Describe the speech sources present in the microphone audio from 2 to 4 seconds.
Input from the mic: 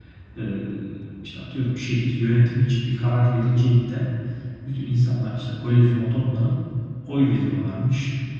user only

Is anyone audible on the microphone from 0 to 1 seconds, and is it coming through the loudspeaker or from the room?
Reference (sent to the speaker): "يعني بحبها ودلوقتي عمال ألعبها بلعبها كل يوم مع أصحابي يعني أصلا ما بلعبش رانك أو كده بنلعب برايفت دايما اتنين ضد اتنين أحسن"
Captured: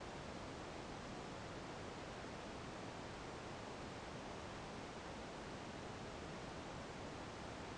neither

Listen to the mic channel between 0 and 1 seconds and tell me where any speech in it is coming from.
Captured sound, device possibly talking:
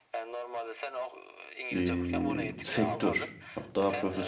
echo only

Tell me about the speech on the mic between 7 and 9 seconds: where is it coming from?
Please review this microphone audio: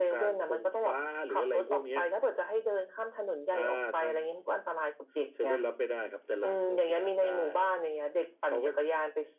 echo only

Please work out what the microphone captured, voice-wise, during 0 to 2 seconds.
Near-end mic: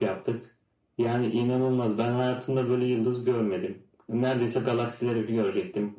echo only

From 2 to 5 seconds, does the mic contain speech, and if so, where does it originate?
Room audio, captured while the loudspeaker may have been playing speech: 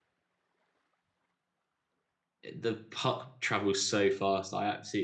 user only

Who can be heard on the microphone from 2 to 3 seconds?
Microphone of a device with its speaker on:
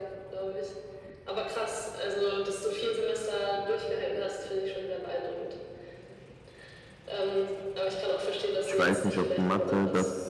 echo only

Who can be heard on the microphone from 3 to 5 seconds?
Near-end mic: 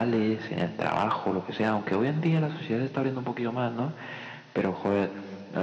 echo only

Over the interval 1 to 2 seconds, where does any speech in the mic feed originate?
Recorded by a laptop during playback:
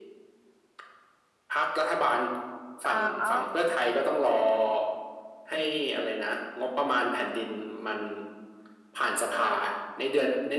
echo only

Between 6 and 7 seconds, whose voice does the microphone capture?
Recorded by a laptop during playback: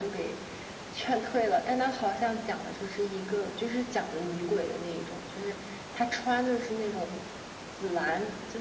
echo only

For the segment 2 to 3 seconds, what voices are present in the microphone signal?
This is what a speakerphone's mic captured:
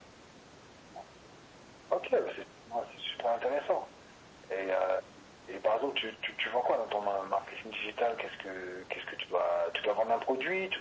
echo only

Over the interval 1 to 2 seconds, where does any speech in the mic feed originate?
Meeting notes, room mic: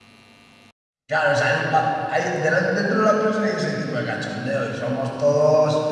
user only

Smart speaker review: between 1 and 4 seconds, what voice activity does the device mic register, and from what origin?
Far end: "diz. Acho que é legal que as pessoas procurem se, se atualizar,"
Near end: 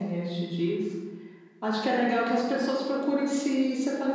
echo only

